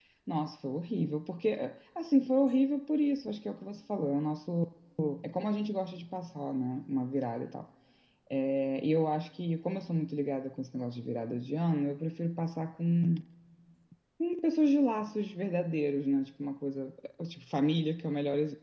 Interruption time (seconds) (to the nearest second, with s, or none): none